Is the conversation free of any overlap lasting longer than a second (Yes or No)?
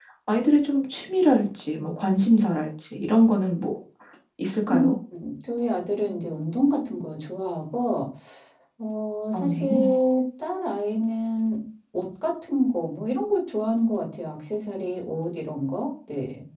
Yes